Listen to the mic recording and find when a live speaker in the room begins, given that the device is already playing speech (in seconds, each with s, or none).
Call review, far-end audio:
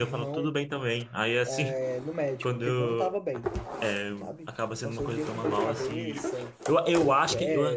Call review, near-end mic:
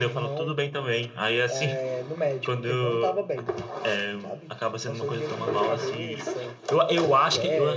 none